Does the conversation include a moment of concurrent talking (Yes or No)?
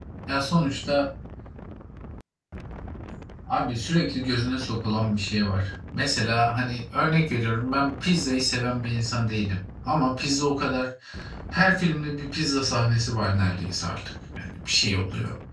No